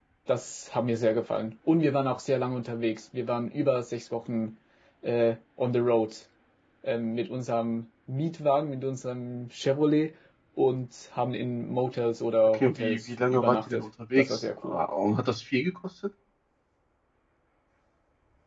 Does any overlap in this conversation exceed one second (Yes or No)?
Yes